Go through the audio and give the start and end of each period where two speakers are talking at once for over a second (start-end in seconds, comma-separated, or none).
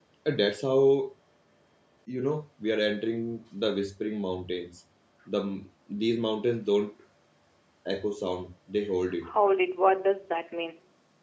none